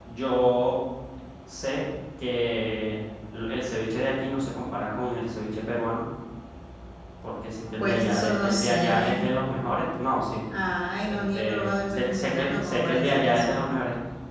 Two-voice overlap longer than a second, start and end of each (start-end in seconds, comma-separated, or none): 7.8-9.3, 11.1-13.6